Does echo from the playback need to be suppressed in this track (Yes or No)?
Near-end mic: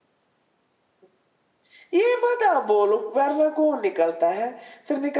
No